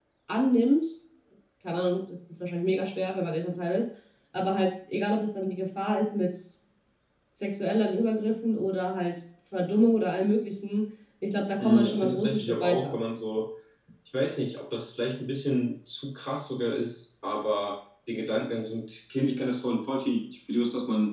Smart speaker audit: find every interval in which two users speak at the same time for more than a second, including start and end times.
11.6-13.0

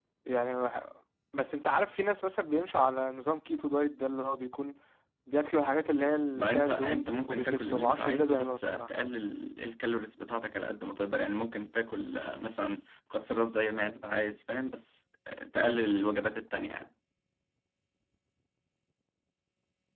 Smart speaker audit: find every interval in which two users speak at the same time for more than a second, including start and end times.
6.4-8.9

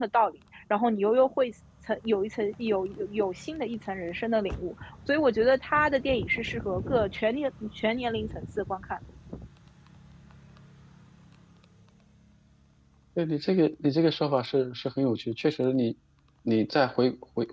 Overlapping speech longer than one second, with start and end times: none

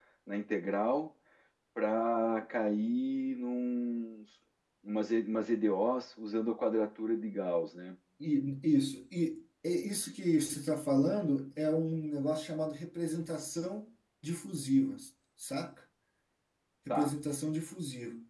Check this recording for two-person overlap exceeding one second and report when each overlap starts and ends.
none

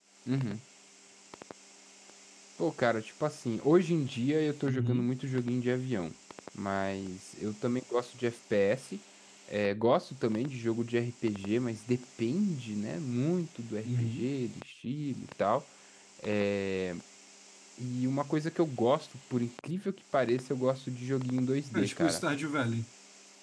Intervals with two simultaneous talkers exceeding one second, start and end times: none

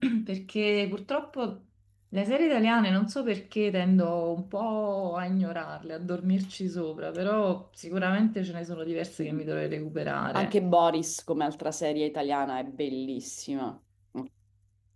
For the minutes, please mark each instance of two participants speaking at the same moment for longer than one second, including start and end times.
none

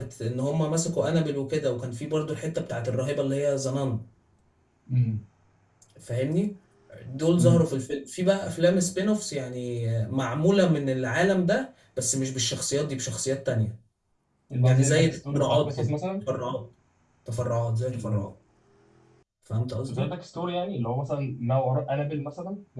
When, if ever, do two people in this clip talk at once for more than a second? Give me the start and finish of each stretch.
14.6-15.9

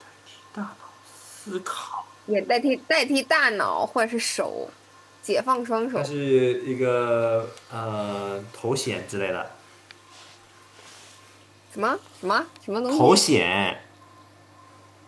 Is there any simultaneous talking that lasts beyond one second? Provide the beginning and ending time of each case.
none

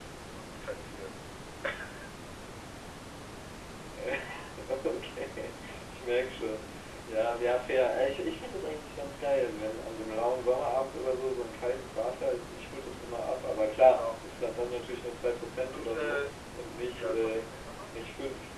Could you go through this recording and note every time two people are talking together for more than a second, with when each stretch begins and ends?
none

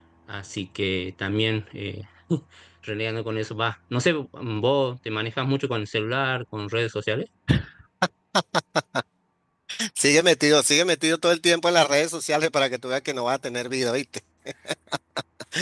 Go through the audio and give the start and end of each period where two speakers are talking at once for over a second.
none

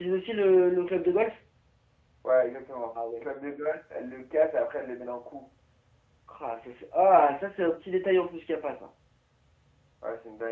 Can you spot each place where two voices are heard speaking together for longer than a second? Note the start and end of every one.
none

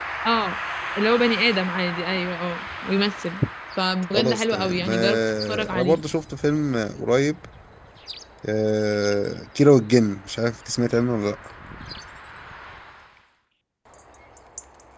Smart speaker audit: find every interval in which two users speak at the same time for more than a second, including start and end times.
4.1-6.0

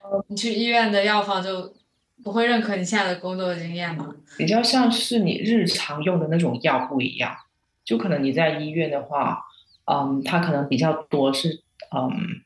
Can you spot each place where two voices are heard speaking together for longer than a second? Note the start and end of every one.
none

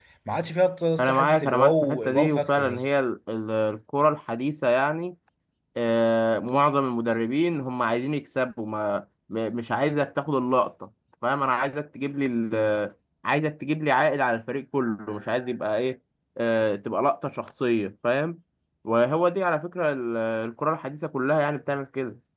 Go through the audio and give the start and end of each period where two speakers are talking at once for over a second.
1.0-2.8

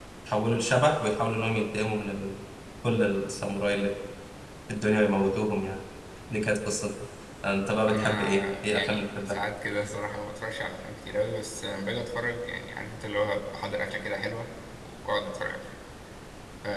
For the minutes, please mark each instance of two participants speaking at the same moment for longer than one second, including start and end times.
7.9-9.4

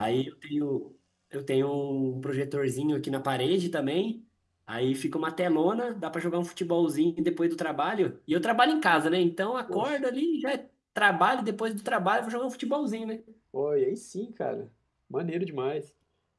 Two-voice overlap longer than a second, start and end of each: none

